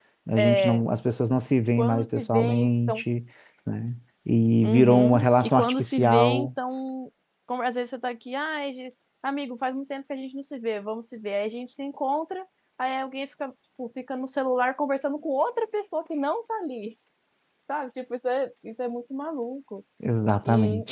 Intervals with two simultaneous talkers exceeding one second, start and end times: 1.8-3.0, 4.6-6.5

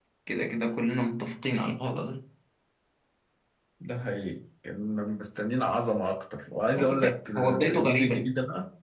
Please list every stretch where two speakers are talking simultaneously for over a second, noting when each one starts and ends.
6.8-8.3

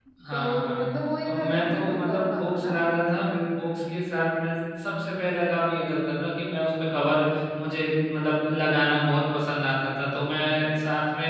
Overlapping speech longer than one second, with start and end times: 1.3-2.8

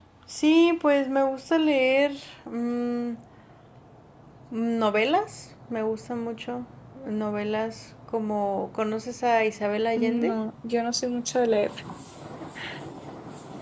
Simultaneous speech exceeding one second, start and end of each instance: none

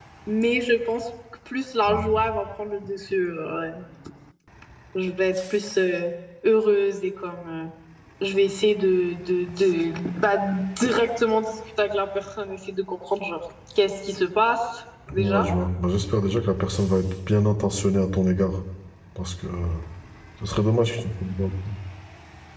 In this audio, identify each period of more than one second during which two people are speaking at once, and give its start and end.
none

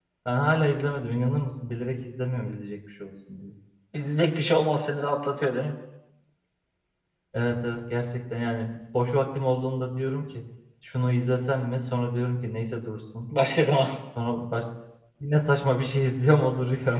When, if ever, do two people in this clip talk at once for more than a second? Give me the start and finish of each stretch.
none

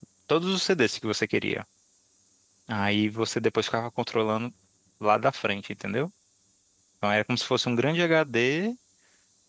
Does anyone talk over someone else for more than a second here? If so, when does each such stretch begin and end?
none

